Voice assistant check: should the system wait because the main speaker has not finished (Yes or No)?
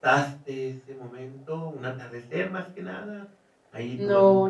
No